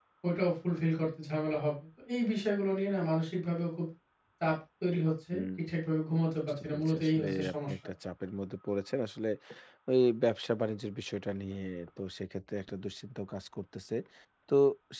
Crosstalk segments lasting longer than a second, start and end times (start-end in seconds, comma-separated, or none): 6.5-7.7